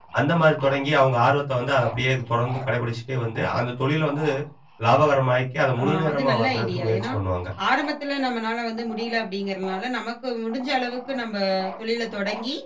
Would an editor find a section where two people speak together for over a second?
Yes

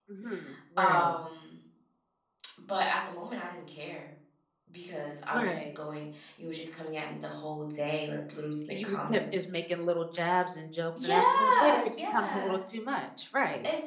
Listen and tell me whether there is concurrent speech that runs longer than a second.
Yes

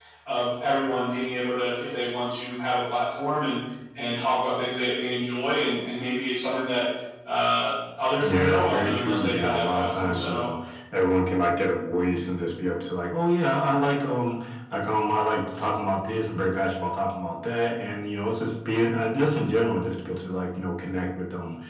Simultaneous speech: Yes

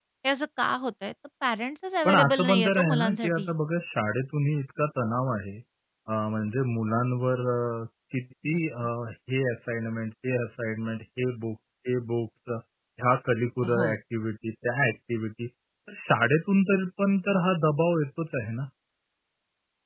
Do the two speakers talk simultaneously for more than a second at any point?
Yes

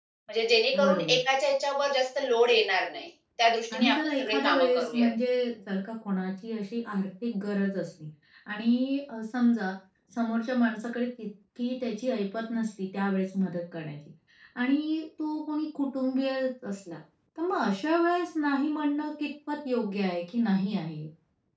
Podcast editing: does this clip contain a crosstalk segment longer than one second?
Yes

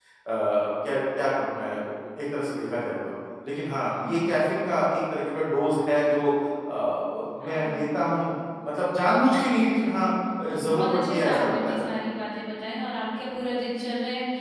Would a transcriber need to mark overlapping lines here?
Yes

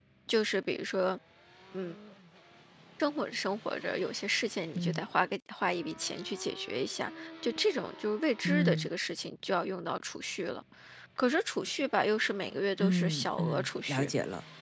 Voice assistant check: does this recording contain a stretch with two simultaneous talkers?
Yes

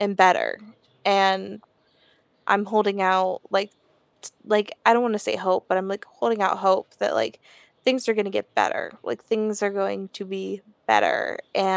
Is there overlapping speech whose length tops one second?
No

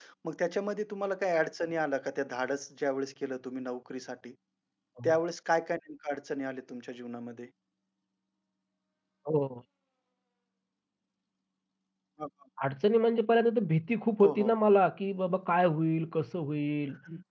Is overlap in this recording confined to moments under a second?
Yes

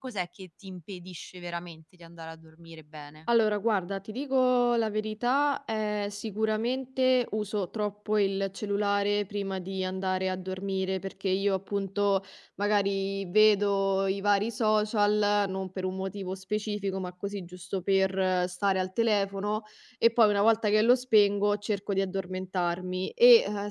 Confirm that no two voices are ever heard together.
Yes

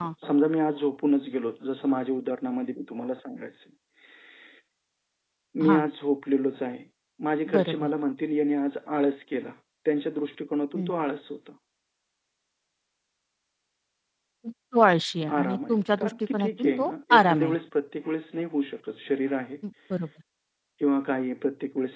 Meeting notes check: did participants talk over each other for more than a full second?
Yes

